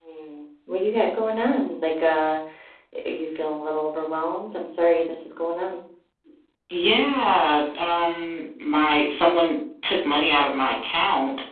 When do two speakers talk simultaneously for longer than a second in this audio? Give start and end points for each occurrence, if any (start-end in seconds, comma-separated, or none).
none